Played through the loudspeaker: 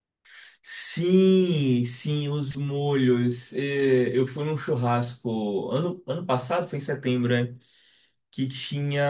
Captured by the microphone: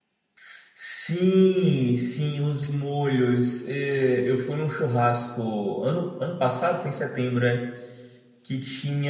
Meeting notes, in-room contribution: none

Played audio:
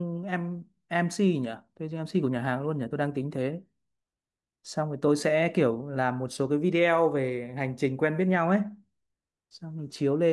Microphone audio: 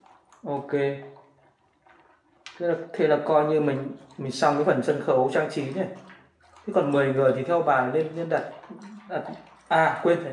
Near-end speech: present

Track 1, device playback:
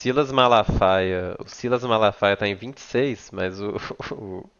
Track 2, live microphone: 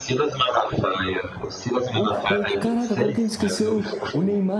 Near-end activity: present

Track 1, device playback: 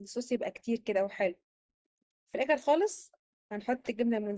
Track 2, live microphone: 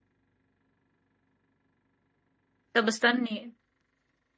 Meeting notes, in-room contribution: present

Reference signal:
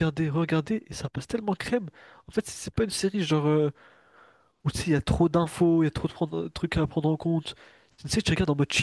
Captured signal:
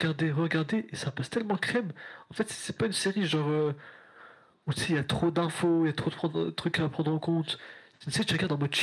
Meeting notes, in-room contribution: none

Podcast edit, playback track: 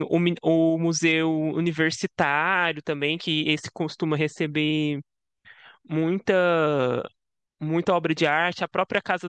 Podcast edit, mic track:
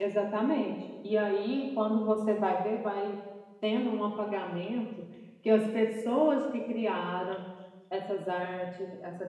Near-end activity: present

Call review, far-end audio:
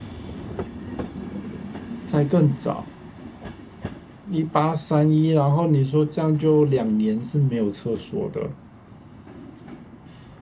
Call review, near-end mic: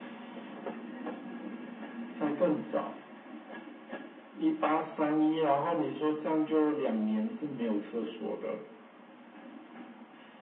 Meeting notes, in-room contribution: none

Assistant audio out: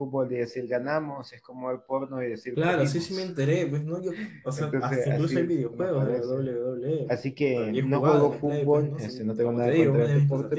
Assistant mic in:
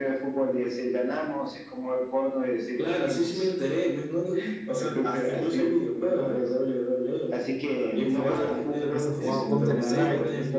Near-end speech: present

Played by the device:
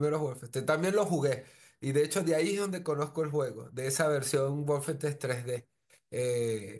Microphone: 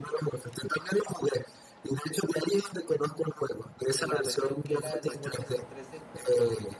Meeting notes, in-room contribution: present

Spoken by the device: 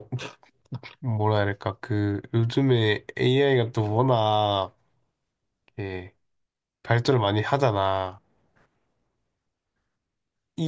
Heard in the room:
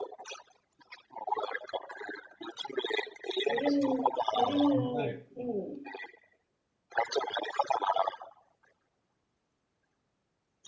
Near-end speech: present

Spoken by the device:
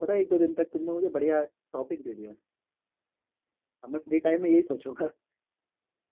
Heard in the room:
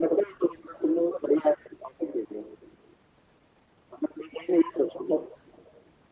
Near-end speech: none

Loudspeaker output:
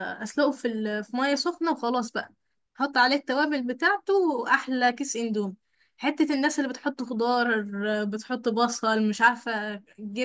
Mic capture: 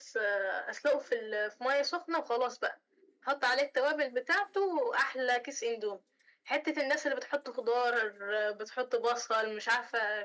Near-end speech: none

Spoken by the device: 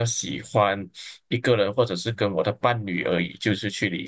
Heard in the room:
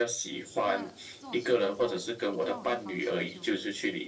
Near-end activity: present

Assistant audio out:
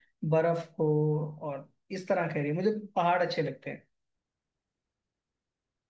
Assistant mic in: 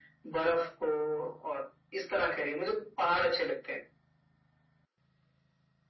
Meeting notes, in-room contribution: none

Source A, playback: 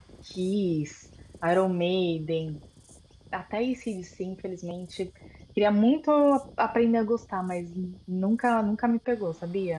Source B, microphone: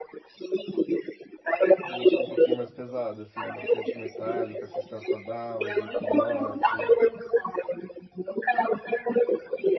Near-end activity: present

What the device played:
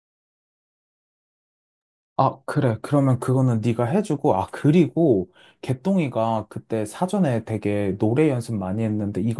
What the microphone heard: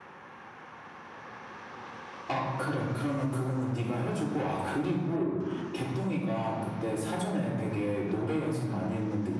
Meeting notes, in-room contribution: none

